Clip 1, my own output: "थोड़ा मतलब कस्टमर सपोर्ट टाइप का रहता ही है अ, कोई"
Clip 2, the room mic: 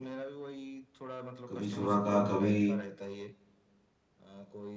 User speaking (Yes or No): Yes